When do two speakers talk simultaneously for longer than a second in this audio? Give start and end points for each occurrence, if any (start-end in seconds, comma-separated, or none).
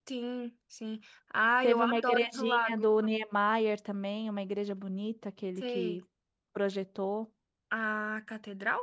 1.6-2.9